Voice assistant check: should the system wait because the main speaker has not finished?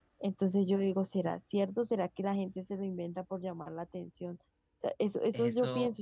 No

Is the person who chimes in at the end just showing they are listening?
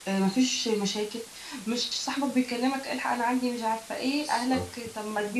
Yes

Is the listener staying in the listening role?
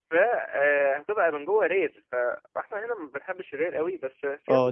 No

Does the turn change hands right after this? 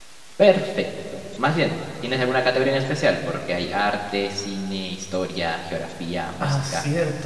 Yes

